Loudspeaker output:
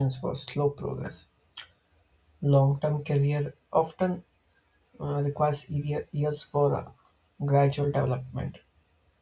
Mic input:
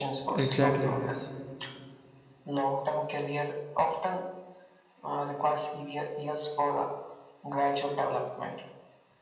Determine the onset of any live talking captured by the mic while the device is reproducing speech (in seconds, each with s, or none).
0.3 s